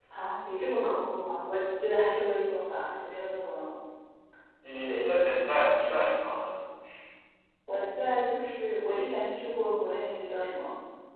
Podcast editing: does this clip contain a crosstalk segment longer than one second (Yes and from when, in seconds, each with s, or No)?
No